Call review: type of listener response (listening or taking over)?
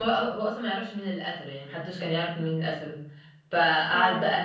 listening